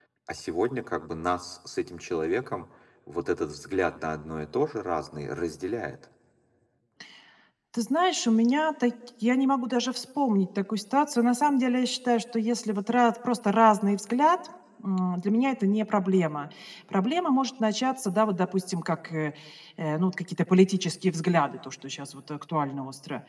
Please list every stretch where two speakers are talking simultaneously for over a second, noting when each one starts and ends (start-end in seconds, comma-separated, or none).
none